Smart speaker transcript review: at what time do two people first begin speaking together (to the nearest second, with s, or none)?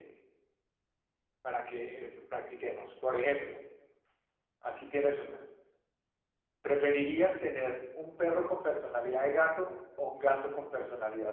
none